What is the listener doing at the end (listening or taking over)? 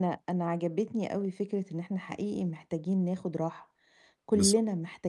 listening